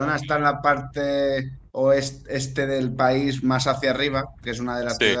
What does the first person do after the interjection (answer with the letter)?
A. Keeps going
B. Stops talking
A